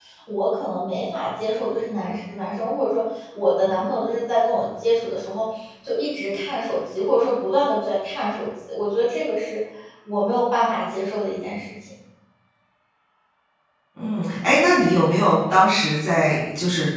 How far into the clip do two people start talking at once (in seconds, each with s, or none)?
none